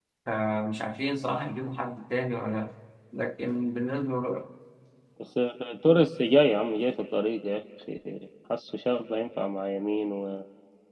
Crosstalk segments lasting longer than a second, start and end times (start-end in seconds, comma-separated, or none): none